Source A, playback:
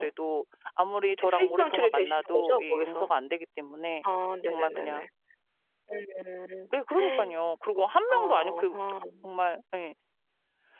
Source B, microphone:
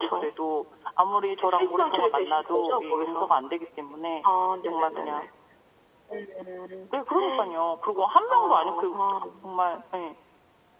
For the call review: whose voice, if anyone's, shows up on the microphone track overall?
echo only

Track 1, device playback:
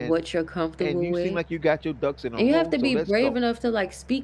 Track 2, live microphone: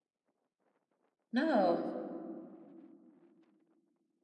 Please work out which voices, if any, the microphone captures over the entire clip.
user only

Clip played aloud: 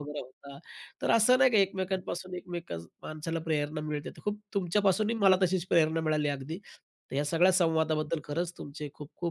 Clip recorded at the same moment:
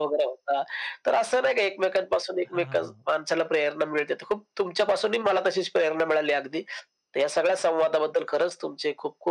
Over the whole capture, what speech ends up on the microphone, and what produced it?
both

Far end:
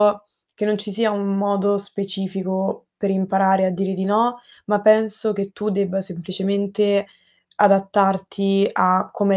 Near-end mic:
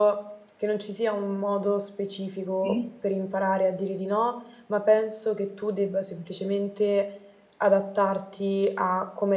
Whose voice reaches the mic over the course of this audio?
both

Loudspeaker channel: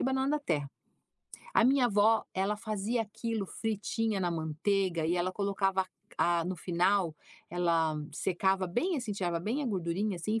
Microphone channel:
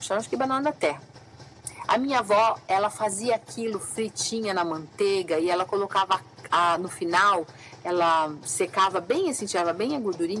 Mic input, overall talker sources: echo only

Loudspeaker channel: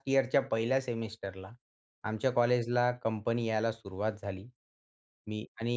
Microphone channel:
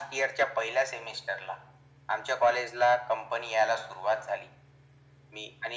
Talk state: echo only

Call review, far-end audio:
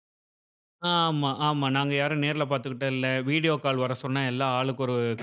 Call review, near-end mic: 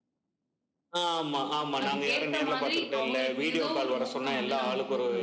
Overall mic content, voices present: both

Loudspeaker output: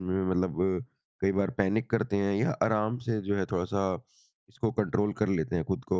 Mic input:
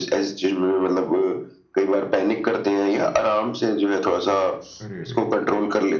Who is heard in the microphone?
both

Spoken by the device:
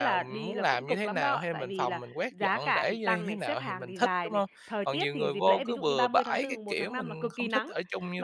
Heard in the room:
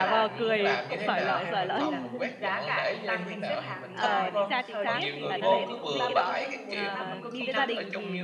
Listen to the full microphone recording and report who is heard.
both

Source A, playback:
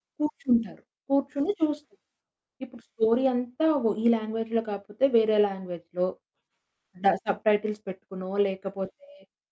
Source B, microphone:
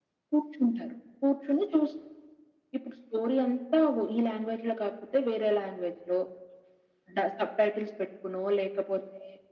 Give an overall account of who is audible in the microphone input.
echo only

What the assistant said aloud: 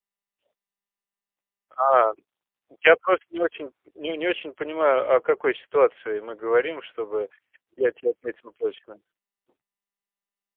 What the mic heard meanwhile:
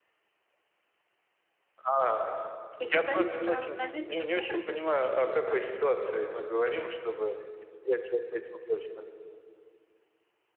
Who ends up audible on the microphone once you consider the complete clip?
both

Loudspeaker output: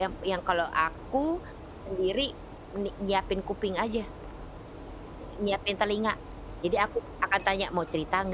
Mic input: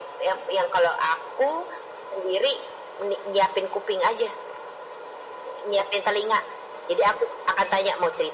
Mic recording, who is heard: echo only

